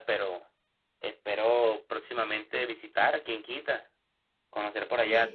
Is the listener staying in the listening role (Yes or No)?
Yes